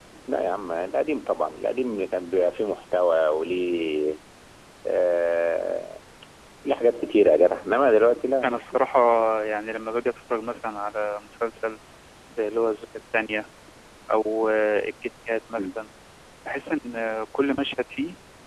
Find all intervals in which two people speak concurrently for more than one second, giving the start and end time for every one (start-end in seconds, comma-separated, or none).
none